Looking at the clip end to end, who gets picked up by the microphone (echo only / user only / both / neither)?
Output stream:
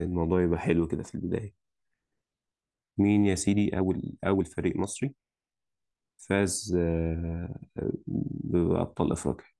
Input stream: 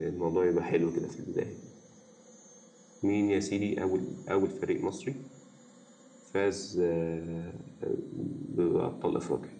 echo only